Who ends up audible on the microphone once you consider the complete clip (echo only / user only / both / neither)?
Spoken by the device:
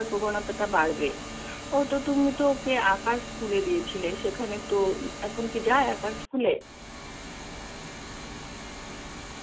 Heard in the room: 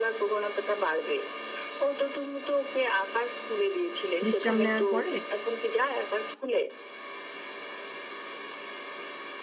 both